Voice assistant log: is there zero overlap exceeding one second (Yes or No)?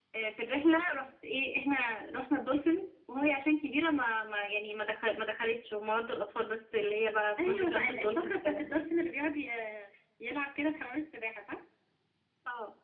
No